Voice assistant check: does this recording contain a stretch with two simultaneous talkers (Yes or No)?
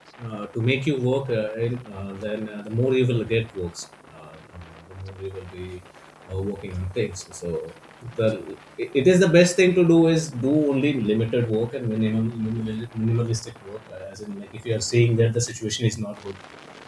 No